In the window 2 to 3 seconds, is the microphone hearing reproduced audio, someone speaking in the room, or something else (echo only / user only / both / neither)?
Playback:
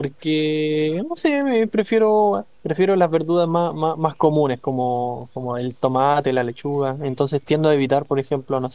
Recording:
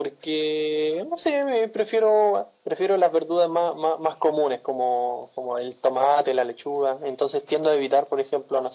echo only